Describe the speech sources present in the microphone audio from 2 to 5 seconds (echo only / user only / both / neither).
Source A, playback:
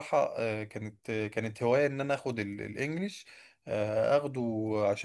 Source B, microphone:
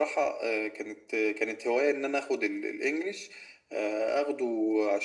echo only